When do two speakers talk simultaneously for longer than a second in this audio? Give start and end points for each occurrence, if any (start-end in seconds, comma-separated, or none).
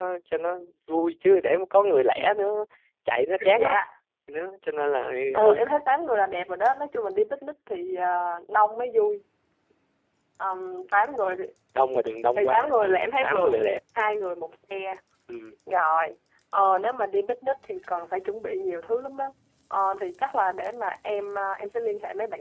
12.4-13.6